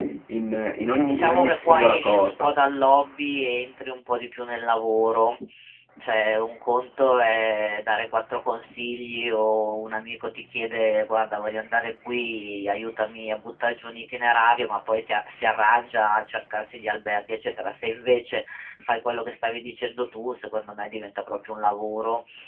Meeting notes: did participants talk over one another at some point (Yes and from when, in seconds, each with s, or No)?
Yes, from 1.1 s